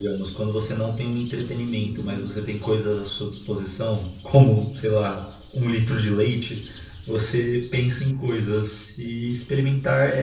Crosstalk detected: No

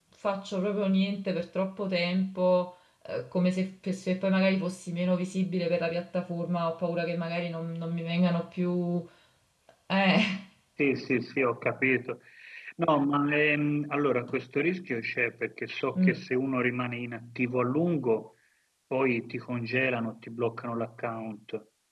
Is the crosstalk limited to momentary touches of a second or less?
Yes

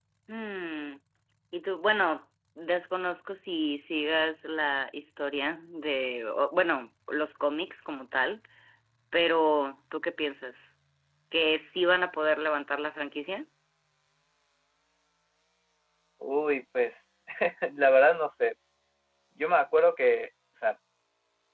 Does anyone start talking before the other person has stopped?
No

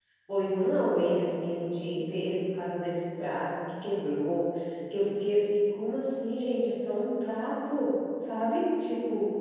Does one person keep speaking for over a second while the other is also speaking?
No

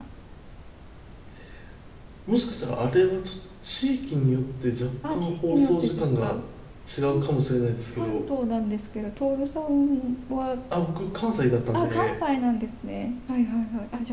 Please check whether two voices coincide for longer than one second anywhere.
Yes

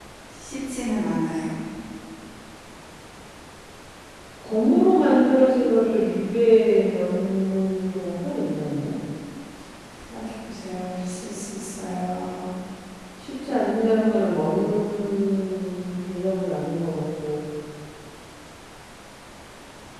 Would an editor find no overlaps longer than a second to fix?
Yes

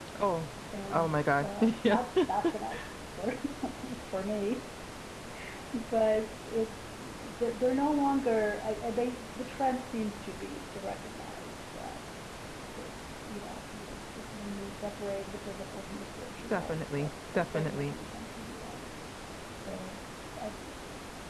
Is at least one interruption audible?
Yes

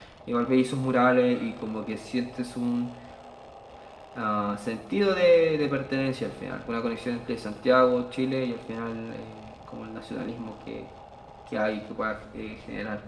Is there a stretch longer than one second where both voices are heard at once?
No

